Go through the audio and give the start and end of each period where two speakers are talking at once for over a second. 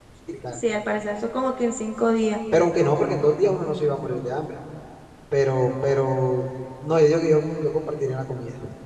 none

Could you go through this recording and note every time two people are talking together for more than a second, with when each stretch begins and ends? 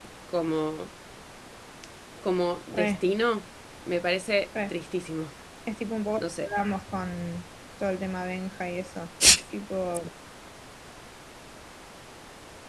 none

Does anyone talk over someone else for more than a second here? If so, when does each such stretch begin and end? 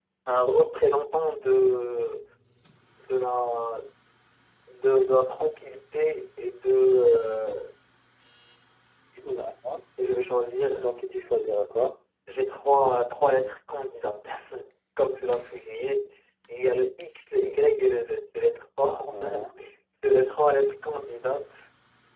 none

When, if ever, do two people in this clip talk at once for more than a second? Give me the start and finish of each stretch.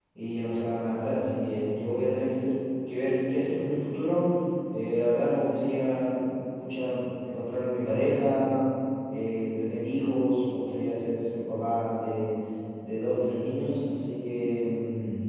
none

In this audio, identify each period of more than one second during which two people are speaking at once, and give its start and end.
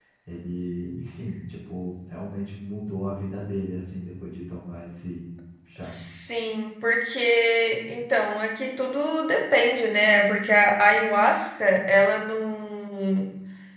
none

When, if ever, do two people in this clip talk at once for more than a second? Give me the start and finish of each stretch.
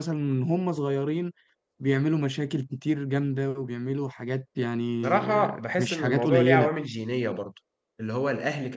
5.0-6.7

